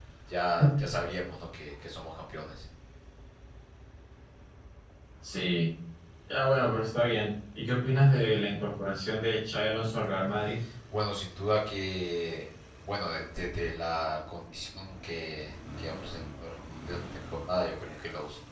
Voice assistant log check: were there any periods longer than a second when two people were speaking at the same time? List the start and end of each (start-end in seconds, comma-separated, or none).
none